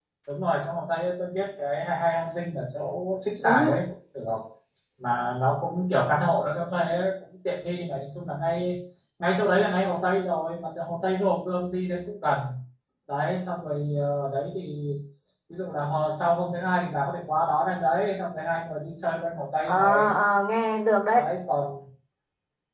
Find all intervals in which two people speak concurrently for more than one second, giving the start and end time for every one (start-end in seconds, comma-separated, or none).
none